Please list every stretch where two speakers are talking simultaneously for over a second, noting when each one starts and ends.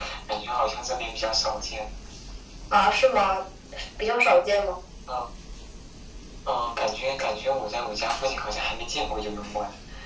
none

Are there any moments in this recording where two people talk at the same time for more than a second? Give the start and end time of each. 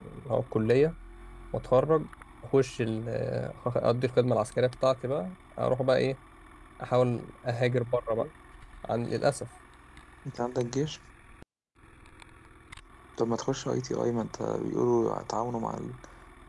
none

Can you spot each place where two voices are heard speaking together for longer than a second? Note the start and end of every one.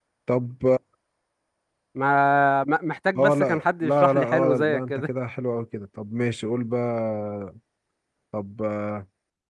3.1-5.0

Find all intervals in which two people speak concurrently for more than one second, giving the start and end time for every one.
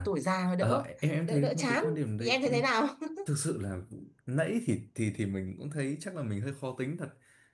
1.3-2.7

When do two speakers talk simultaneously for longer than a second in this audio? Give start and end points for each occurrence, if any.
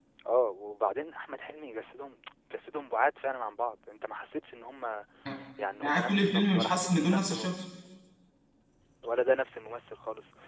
5.8-7.5

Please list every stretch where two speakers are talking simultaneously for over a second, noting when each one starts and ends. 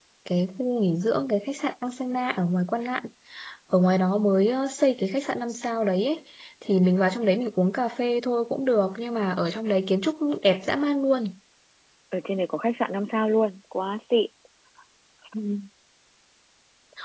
none

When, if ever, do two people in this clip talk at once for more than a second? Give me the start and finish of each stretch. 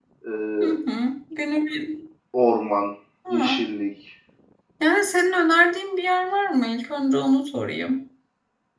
none

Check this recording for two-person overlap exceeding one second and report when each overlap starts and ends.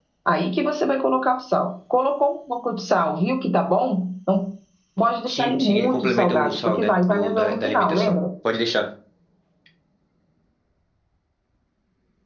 5.3-8.2

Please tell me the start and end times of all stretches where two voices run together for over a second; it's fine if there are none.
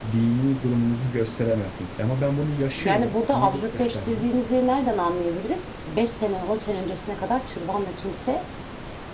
2.8-4.2

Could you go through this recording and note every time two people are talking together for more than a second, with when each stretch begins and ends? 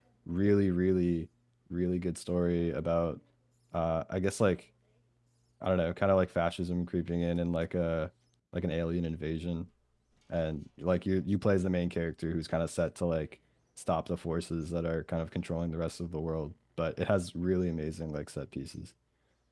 none

